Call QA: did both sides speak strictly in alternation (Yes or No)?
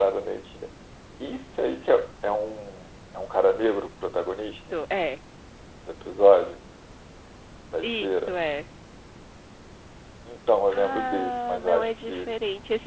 No